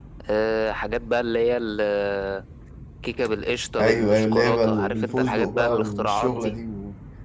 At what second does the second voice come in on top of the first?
3.8 s

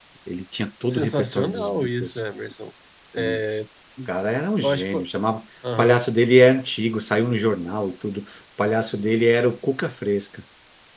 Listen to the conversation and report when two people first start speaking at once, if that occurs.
0.9 s

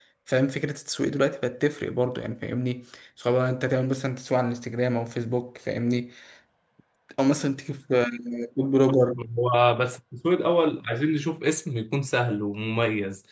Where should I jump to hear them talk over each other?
none

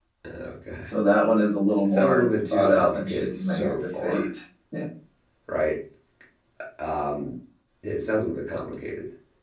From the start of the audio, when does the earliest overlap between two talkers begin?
1.9 s

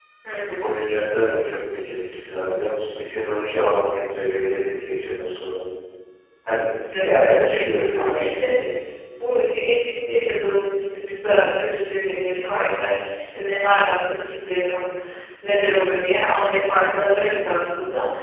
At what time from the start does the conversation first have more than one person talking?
6.9 s

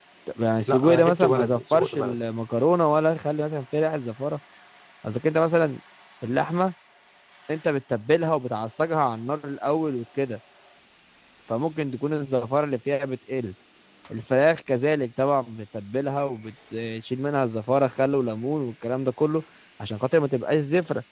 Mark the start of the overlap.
0.7 s

